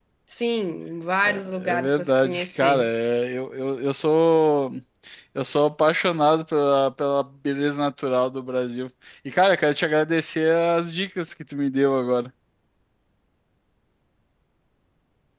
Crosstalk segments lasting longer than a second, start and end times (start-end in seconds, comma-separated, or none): 1.2-2.9